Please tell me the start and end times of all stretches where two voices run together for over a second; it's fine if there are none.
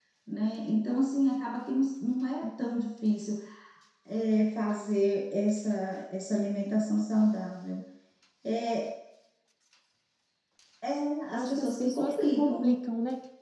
11.3-12.8

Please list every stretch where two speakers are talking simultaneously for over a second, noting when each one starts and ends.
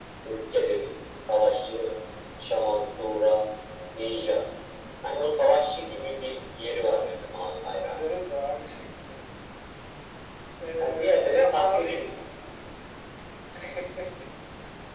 10.8-12.0

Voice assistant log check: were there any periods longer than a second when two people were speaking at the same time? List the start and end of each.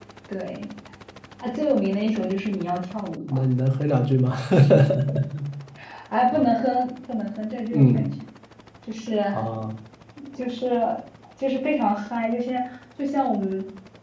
none

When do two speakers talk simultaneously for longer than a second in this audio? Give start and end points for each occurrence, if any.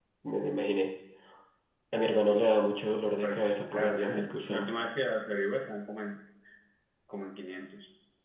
3.2-4.7

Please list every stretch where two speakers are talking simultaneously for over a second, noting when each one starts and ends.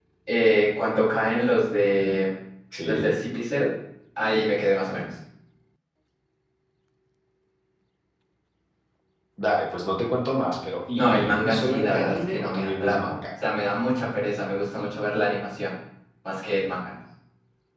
11.0-13.1

